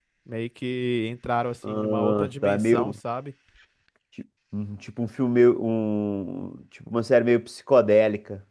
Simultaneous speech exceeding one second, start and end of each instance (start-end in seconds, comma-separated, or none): 1.7-2.9